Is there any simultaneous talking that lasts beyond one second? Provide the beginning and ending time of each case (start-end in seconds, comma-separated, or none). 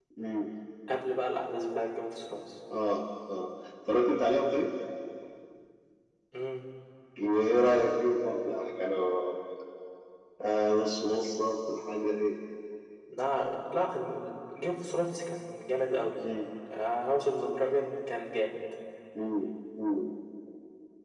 none